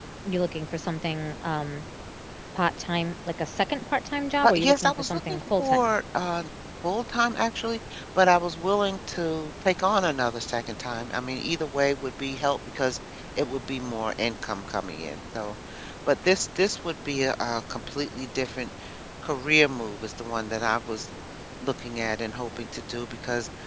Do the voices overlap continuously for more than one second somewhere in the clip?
Yes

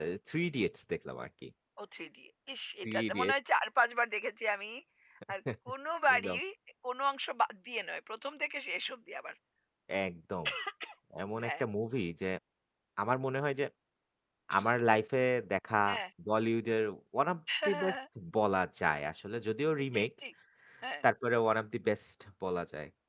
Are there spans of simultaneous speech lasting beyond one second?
No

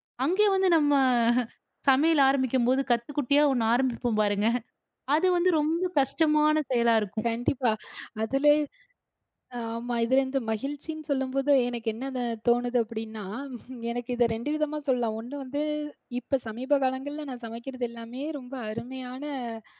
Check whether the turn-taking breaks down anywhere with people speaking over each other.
No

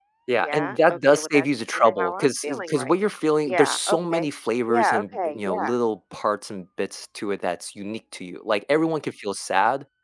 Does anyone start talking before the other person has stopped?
Yes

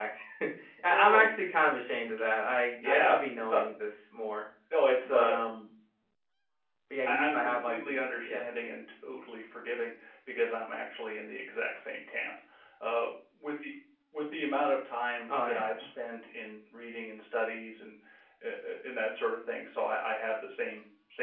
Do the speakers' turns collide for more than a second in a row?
Yes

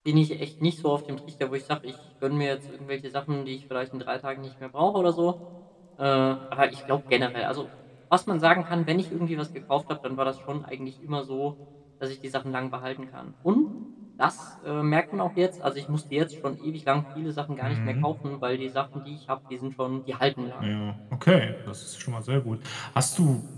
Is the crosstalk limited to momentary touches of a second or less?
Yes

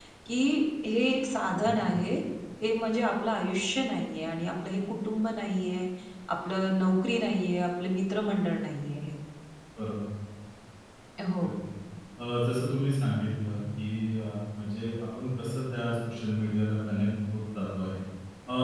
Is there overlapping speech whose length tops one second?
No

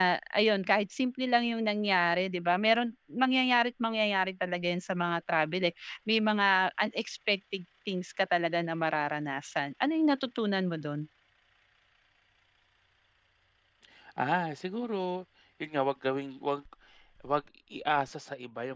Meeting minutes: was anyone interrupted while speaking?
No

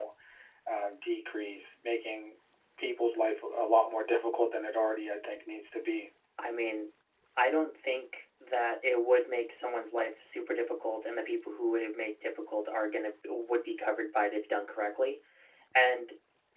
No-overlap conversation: Yes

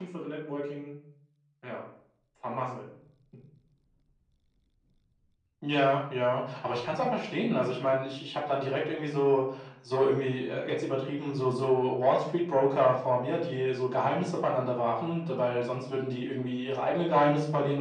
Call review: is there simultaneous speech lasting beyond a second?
No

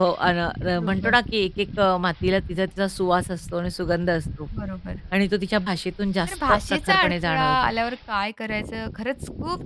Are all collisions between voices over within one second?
No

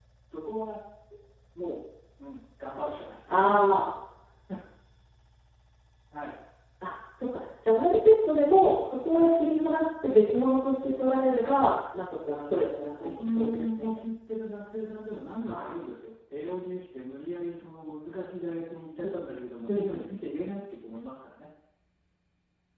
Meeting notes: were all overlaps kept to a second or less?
No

